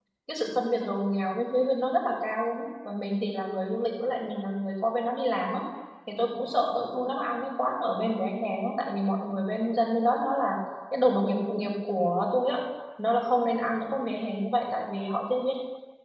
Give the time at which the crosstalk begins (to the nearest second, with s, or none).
none